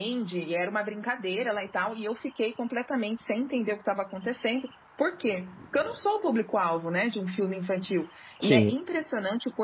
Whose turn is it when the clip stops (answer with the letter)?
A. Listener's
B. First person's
B